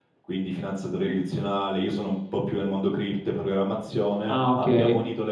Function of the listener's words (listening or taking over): listening